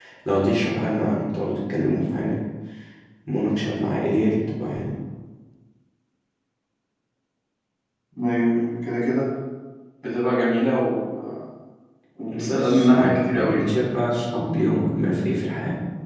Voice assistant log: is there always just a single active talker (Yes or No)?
No